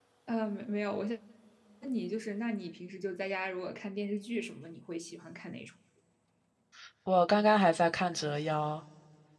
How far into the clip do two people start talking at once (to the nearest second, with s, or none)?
none